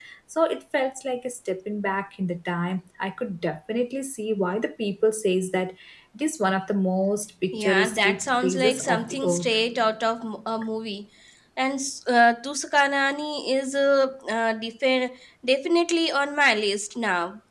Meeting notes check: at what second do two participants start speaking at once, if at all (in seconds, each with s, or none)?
7.5 s